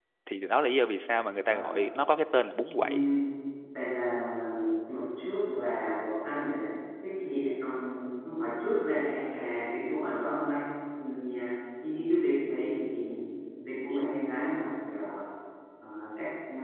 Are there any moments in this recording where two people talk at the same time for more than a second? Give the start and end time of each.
none

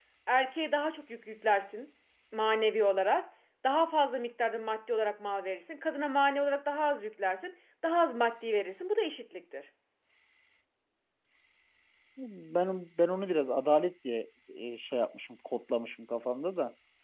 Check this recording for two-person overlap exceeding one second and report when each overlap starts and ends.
none

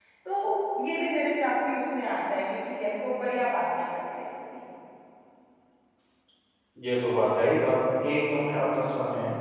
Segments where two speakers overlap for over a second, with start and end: none

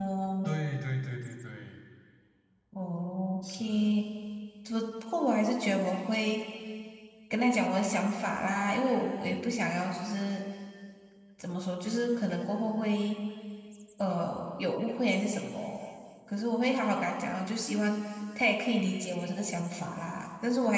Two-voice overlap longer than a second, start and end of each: none

